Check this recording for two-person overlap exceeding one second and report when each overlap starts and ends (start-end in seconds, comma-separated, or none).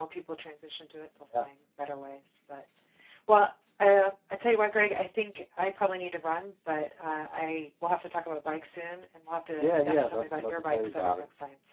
9.5-11.1